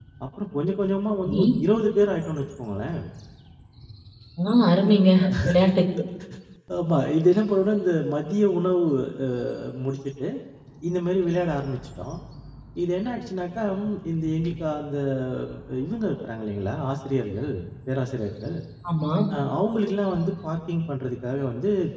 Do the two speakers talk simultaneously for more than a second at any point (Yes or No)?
No